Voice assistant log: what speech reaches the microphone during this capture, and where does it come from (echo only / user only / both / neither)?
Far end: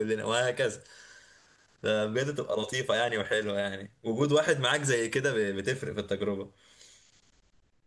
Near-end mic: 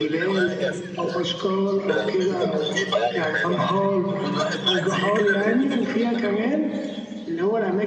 both